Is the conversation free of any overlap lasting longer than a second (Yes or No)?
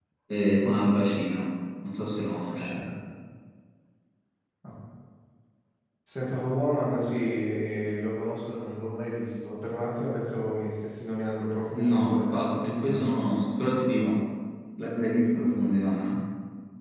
No